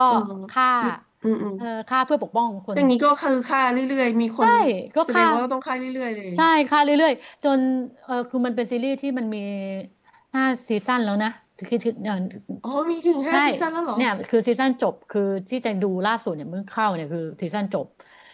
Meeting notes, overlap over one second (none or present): none